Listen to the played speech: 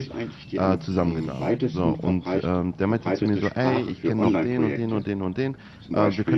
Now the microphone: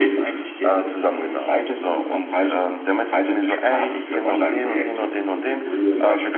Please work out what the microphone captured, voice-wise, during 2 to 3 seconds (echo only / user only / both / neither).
echo only